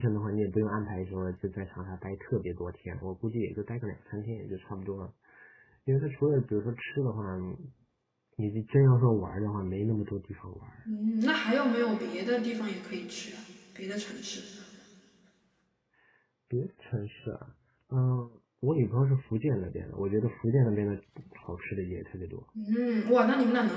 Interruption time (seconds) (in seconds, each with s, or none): none